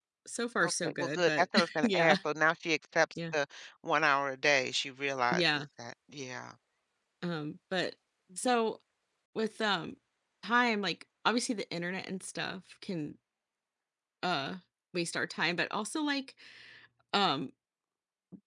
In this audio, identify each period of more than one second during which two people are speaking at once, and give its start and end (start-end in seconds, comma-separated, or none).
0.6-2.2